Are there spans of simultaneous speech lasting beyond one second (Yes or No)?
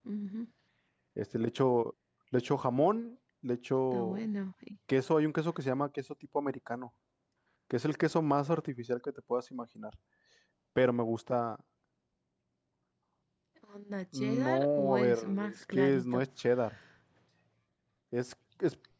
Yes